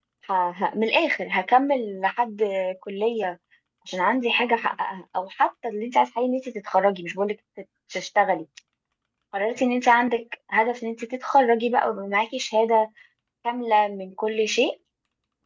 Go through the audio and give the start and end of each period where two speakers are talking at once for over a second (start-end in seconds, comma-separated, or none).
none